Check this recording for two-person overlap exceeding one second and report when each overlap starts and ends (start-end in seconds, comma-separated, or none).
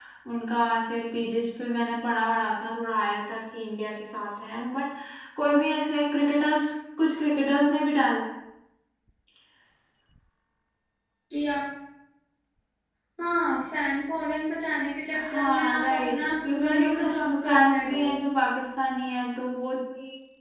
15.1-18.1